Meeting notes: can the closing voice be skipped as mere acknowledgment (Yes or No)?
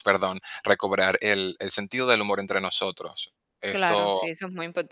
No